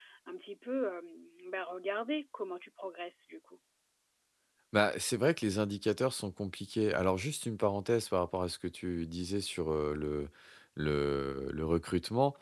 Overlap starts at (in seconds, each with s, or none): none